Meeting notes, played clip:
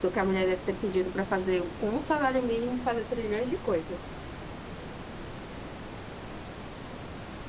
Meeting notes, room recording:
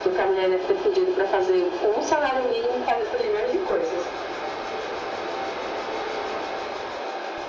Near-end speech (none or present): none